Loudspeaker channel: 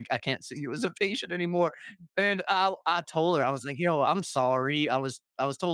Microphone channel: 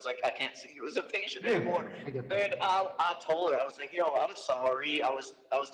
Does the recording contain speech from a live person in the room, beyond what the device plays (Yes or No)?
Yes